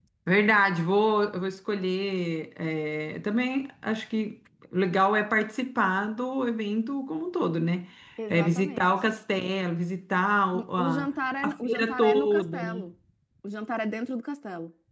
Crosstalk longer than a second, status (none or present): present